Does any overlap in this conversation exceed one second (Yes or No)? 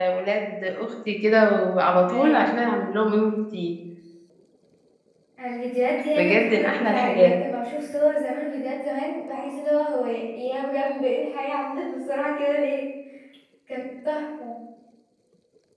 Yes